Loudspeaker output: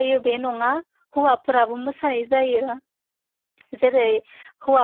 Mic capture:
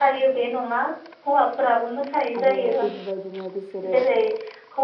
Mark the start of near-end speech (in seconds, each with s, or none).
2.4 s